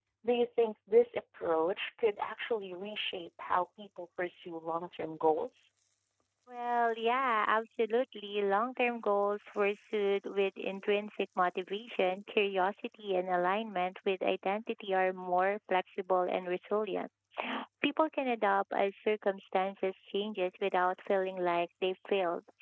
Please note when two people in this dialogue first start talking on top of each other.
none

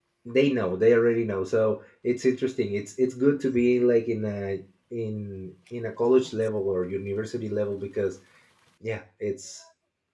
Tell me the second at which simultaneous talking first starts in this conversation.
none

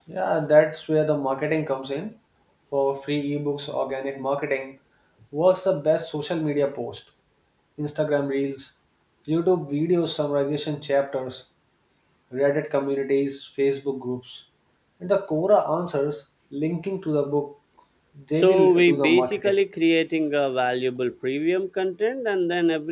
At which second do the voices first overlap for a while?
18.4 s

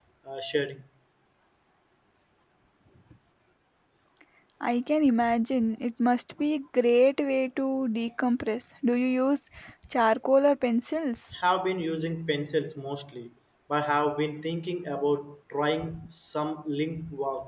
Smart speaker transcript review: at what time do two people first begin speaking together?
none

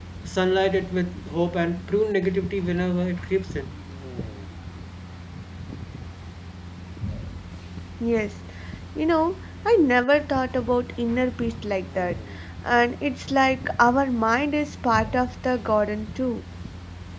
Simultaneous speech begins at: none

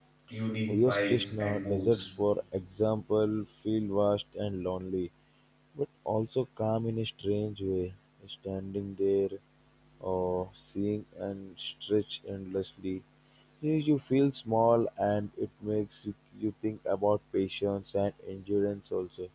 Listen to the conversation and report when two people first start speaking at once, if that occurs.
0.7 s

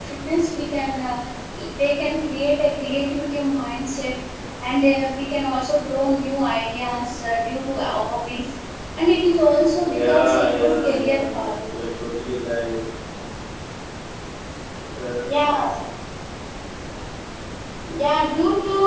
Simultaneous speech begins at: 9.8 s

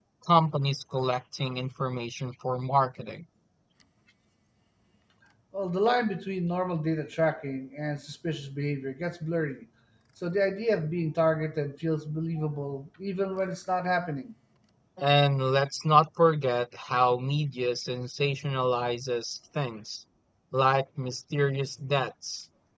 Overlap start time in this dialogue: none

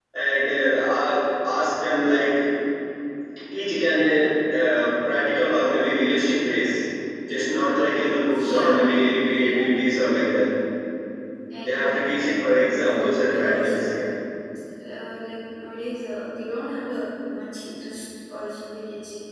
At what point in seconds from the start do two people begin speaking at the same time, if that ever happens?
8.4 s

